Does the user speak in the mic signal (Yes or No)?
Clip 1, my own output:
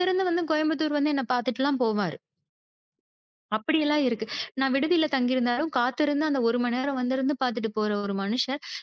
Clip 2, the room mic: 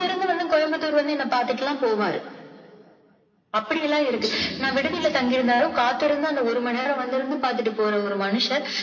Yes